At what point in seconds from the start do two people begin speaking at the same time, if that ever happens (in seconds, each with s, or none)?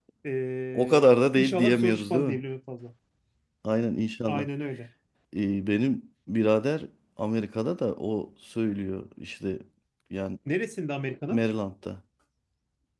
0.7 s